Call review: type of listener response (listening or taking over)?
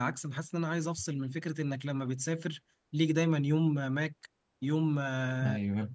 listening